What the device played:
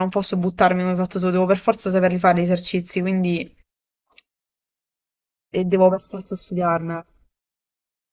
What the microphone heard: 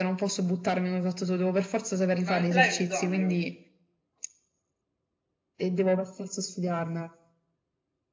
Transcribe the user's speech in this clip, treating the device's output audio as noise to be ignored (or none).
Ma non ce l'hai un esonero?